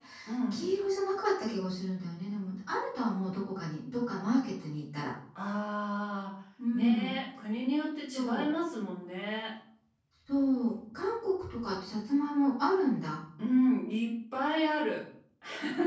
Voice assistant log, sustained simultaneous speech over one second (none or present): none